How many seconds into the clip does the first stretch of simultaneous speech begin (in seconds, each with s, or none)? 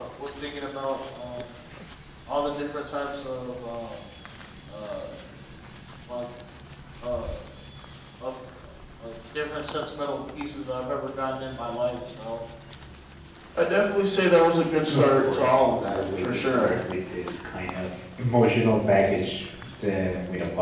14.9 s